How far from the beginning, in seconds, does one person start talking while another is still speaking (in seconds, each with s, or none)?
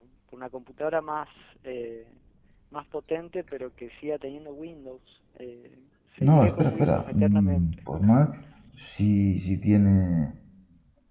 6.2 s